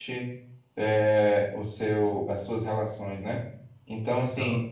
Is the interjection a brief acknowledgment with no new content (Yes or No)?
Yes